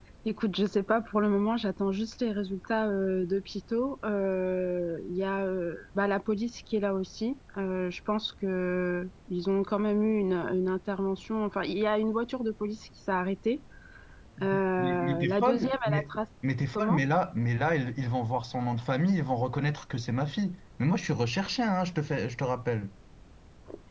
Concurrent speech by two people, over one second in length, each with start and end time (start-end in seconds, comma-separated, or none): 14.8-16.2